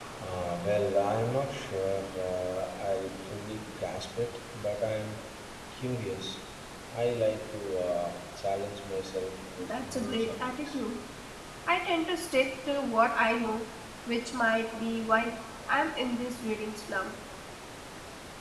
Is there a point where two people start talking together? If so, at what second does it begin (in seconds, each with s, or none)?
9.6 s